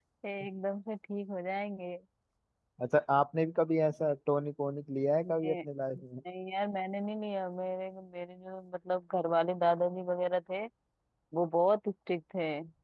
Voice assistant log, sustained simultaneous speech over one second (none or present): none